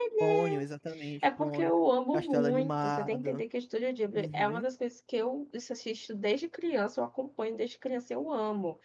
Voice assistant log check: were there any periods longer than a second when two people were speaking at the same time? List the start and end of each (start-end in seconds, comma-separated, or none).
2.1-3.4